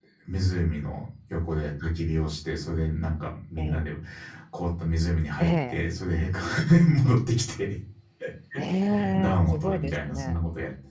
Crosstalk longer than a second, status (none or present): present